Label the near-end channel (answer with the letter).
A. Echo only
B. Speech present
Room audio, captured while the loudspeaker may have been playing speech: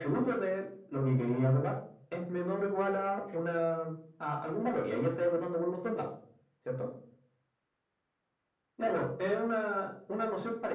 A